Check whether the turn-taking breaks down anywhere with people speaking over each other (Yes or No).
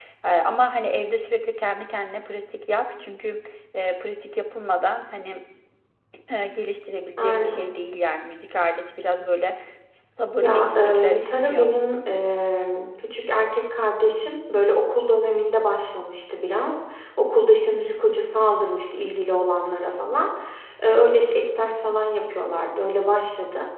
Yes